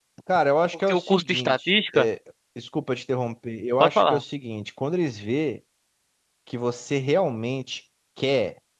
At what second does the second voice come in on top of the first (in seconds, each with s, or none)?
0.7 s